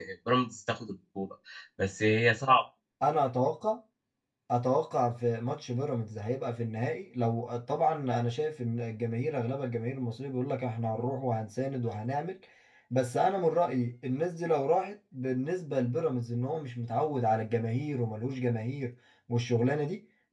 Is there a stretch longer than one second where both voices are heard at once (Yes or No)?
No